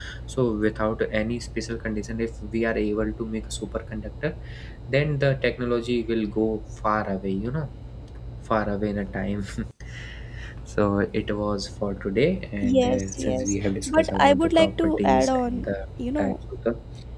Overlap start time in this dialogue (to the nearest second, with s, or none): 13 s